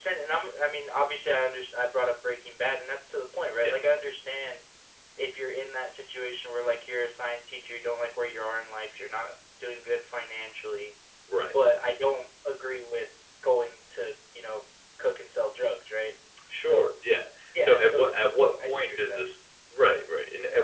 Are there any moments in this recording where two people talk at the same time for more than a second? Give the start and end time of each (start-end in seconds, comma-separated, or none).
17.6-19.2